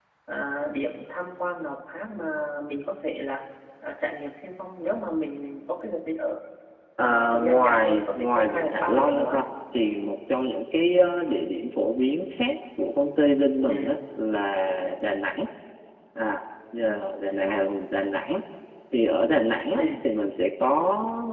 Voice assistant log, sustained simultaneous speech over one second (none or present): present